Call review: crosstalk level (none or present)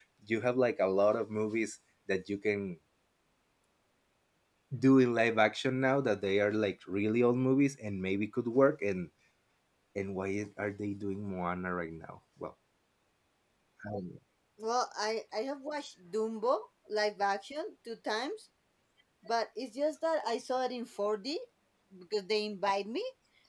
none